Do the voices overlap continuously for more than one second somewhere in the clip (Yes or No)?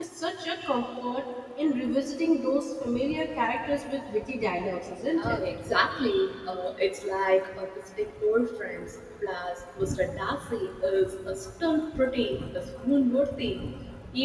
No